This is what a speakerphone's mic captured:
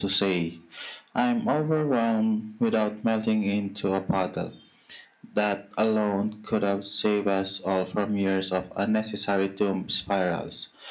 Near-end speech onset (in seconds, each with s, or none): none